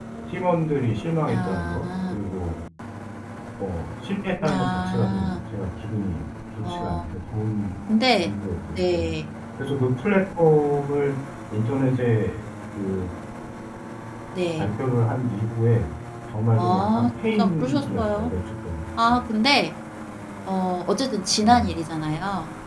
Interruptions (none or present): present